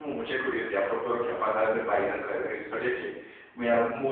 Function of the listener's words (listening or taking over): listening